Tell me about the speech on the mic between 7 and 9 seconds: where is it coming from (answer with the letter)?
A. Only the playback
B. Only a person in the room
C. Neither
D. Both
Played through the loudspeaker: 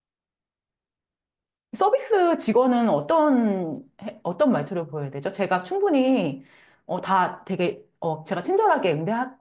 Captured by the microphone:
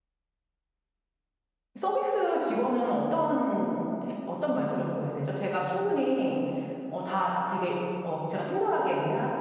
A